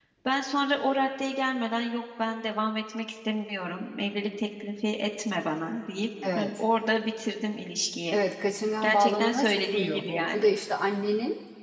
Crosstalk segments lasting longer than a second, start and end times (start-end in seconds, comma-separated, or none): 8.8-10.4